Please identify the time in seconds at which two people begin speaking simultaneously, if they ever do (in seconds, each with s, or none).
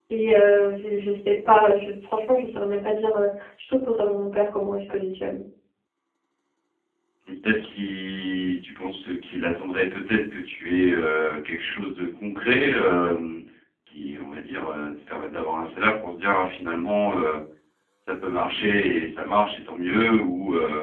none